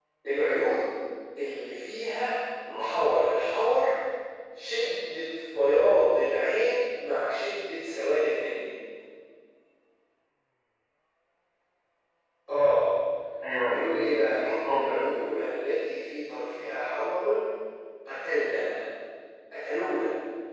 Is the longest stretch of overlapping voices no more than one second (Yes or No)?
No